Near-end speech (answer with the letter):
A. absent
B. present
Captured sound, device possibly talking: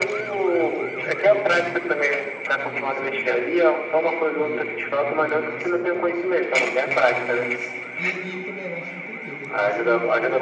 B